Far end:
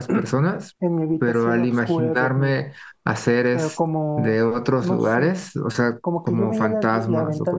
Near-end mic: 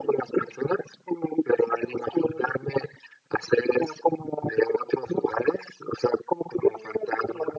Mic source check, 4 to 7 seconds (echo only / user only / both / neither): echo only